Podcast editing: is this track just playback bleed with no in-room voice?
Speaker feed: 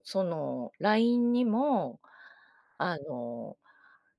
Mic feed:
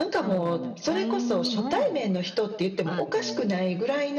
No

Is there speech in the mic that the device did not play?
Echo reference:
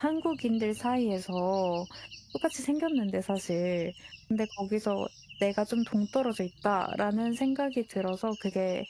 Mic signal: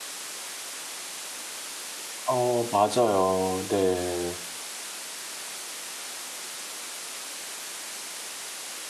Yes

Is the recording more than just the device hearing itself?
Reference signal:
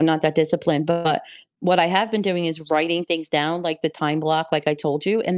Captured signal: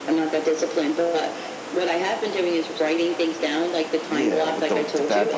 Yes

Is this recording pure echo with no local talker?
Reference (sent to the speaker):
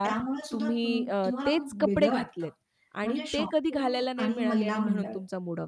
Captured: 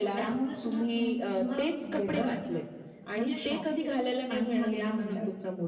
Yes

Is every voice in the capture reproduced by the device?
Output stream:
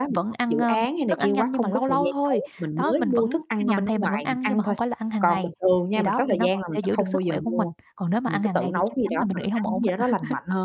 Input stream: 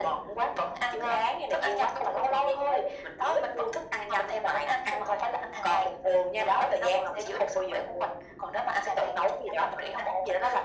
Yes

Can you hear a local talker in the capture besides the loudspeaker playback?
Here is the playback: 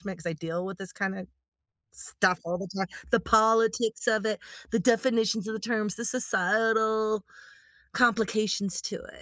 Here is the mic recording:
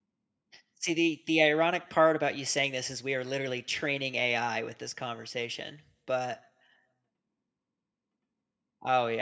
Yes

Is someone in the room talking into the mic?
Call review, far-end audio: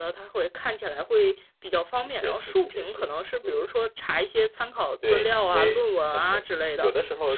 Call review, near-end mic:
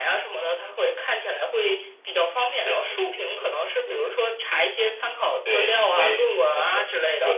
No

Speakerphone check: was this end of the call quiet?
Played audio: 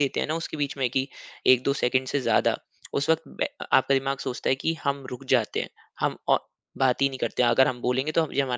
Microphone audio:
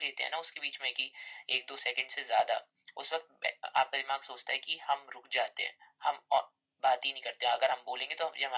Yes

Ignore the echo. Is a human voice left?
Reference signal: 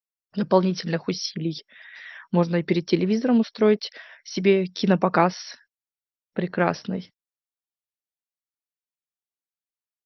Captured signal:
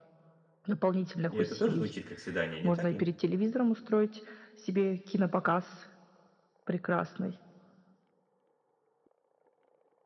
Yes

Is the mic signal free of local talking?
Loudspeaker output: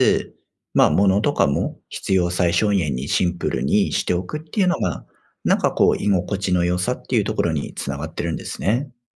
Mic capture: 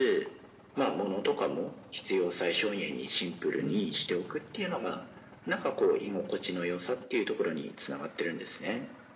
No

